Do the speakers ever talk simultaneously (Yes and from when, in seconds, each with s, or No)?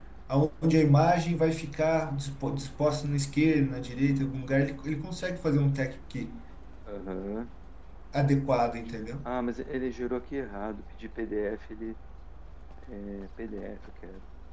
No